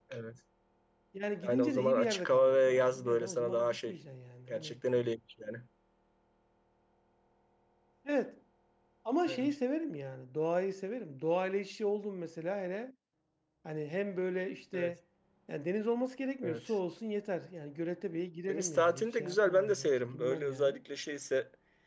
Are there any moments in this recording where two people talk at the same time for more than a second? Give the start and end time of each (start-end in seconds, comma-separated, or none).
1.5-3.9, 18.5-20.8